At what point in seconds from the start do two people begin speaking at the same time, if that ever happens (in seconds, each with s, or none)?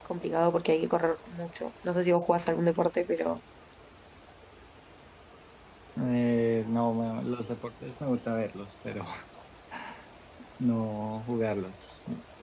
none